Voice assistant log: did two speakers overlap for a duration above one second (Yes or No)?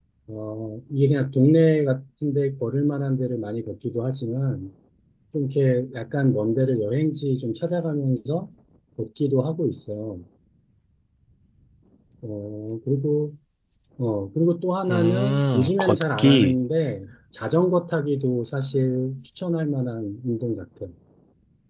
Yes